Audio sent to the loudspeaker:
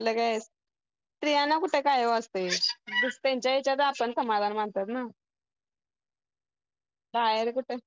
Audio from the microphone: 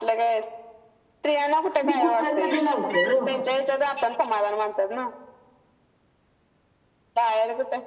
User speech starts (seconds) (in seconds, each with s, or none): 1.8 s